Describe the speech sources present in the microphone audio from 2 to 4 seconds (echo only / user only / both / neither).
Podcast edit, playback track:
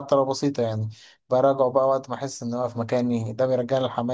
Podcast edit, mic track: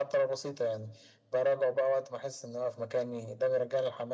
echo only